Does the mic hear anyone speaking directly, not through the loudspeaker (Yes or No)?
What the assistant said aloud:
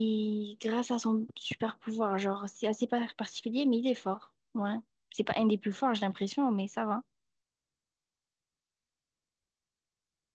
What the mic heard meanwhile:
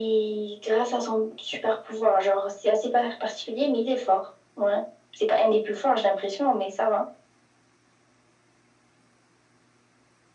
No